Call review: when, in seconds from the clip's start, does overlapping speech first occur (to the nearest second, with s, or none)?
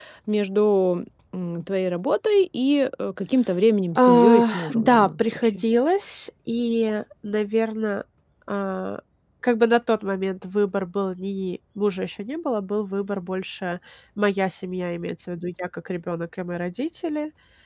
4 s